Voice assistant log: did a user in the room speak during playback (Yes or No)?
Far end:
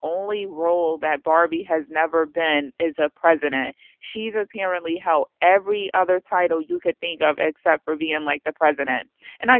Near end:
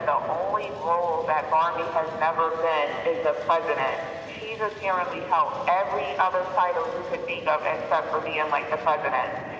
No